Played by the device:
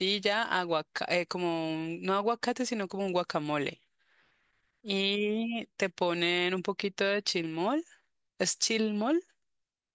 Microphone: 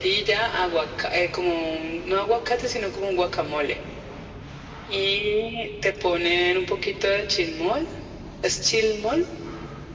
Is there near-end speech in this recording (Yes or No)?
No